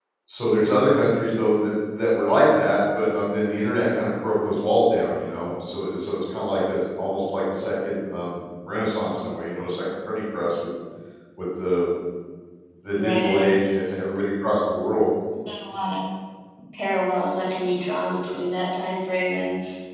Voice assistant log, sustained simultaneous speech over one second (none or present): none